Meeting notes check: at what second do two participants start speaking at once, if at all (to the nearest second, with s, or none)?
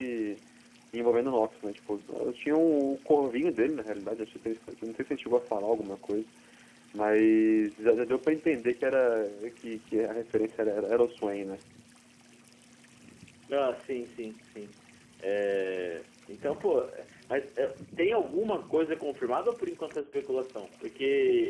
none